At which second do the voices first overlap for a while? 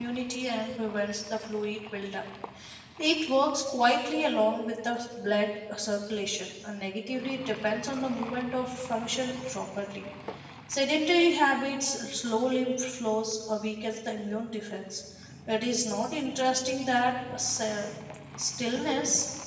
none

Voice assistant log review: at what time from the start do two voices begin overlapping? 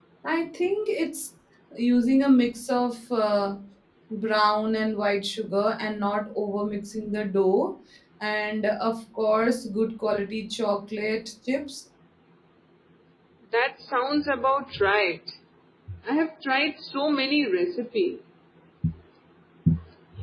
none

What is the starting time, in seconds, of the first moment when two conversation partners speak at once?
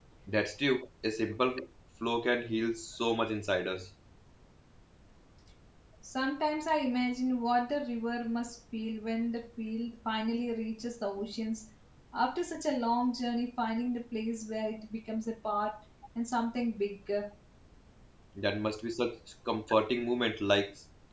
none

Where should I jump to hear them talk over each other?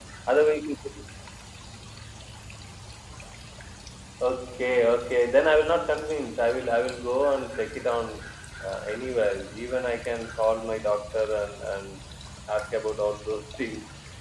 none

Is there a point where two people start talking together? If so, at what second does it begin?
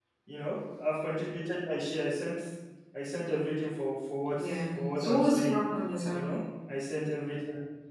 4 s

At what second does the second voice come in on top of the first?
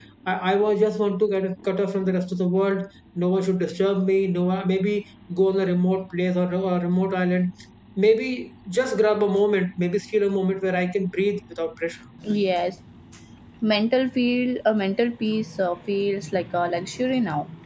none

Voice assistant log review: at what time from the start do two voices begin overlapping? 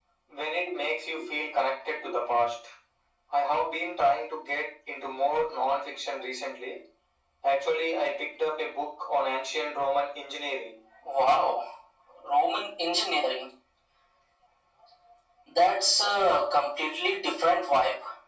none

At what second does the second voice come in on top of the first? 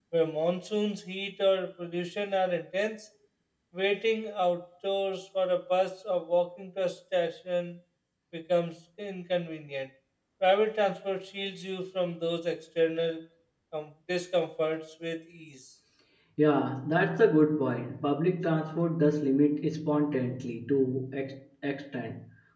none

